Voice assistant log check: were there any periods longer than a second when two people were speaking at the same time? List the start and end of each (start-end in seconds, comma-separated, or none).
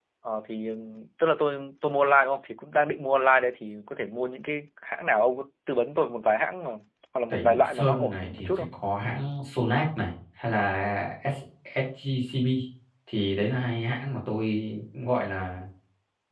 7.3-8.7